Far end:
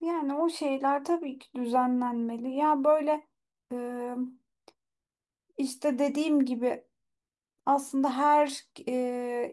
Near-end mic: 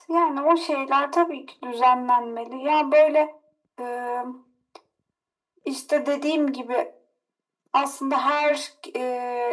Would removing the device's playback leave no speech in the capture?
Yes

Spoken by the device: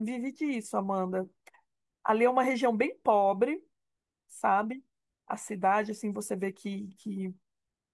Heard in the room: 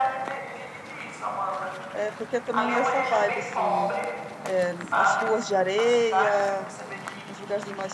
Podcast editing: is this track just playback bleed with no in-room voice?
No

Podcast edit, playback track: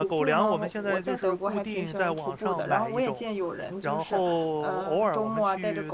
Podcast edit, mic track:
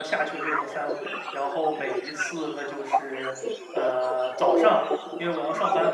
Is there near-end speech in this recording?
Yes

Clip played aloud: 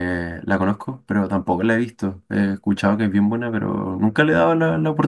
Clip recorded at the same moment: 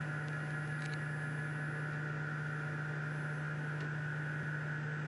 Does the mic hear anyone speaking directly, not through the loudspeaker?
No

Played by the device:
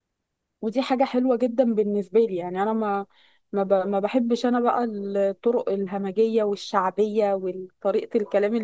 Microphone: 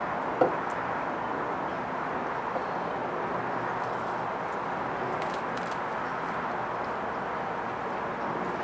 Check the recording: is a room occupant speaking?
No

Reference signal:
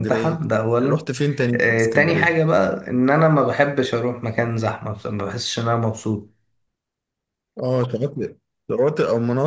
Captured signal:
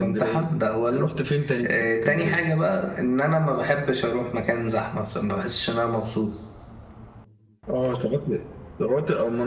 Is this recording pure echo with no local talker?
Yes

